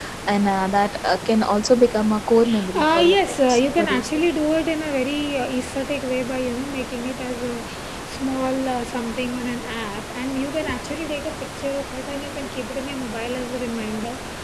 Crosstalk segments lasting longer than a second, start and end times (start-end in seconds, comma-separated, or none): 2.7-4.2